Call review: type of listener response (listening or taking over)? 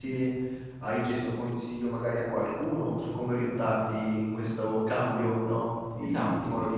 taking over